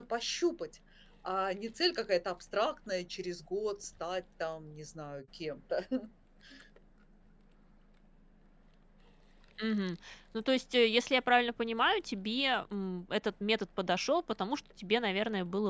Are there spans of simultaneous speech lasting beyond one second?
No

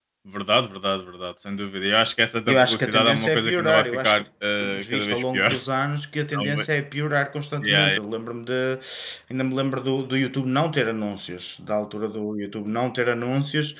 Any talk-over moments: Yes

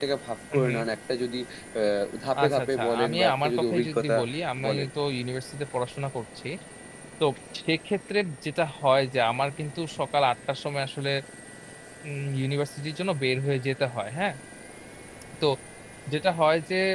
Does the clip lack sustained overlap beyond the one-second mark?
No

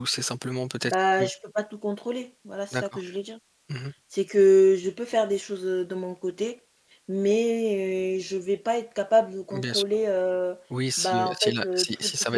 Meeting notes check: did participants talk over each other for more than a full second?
Yes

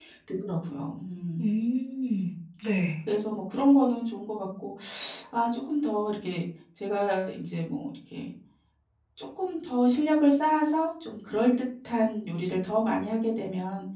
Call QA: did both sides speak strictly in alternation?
Yes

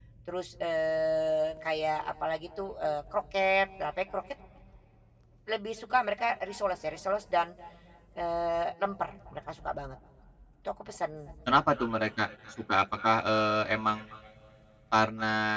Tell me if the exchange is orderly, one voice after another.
Yes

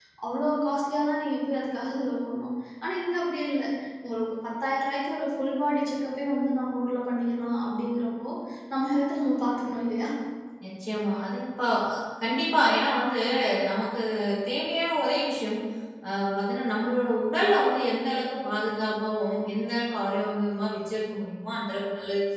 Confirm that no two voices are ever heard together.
Yes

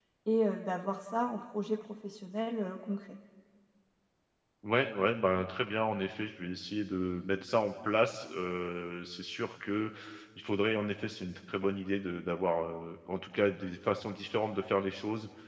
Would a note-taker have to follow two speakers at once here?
No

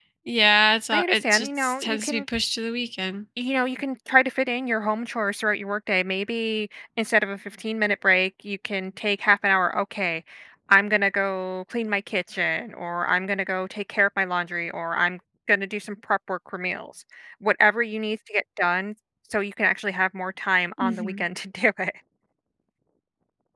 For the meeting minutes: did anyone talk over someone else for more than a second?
Yes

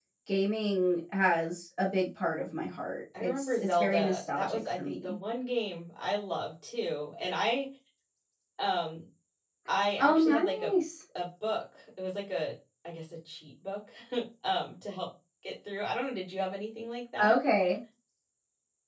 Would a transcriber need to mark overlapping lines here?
Yes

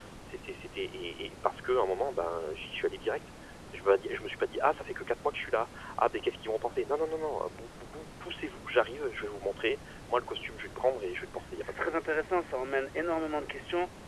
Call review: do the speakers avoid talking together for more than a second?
Yes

